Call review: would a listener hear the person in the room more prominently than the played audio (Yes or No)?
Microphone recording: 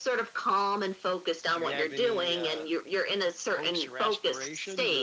No